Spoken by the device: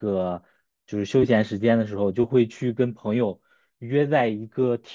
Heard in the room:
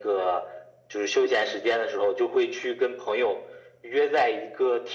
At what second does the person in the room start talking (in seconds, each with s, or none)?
none